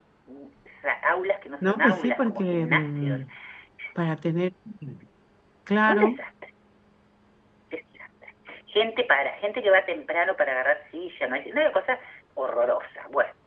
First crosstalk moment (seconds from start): 1.6 s

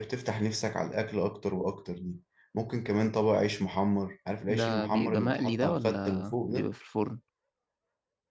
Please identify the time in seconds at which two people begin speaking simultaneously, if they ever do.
4.5 s

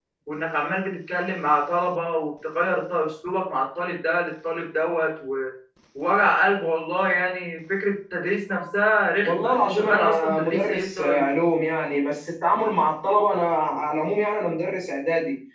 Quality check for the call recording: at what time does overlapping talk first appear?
9.2 s

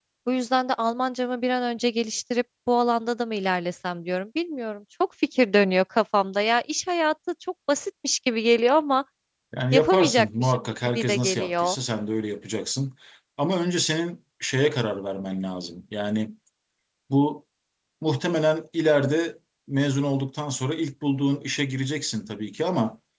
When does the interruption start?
9.7 s

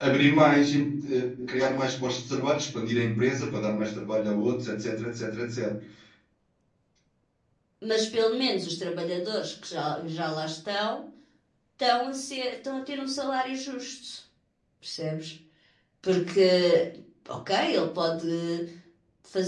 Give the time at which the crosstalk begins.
none

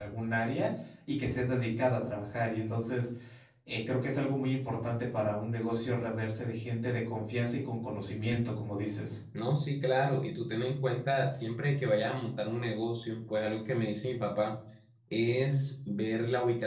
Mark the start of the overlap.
none

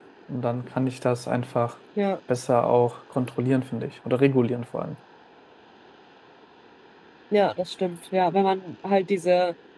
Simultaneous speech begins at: none

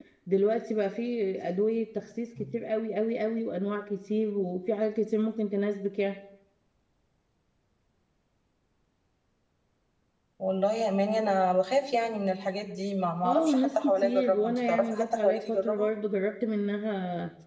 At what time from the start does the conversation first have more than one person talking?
13.2 s

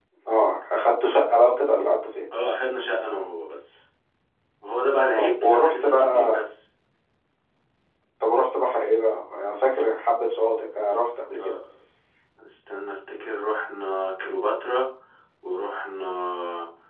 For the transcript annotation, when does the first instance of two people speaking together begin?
5.1 s

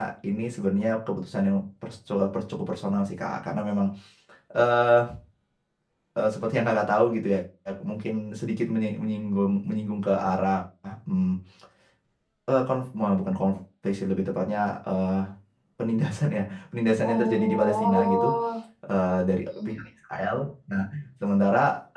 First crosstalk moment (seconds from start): 17.0 s

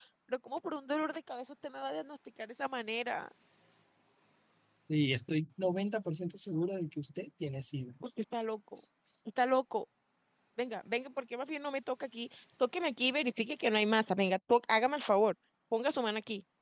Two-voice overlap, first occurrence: none

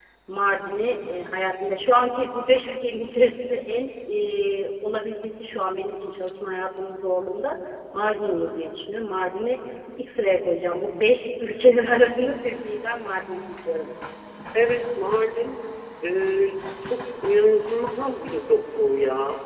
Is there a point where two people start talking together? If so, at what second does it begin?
none

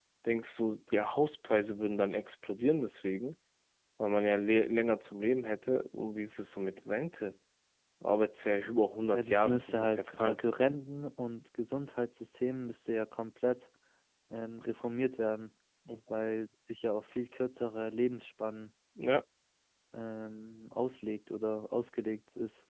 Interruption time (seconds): 9.1 s

